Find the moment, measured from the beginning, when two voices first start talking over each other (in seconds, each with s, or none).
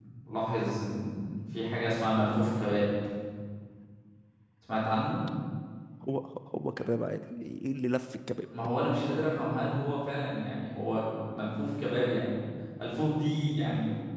none